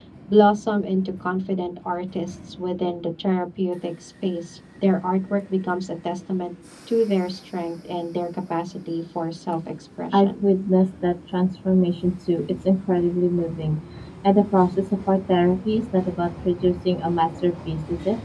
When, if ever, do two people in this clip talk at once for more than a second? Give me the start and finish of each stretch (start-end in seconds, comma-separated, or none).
none